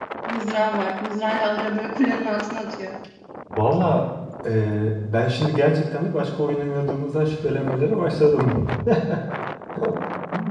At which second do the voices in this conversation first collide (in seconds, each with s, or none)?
none